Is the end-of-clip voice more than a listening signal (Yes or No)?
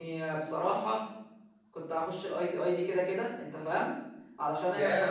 No